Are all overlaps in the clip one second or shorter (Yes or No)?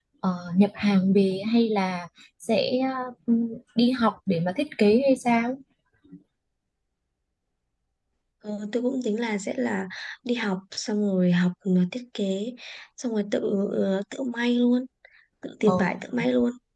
Yes